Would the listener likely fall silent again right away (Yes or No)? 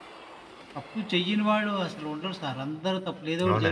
No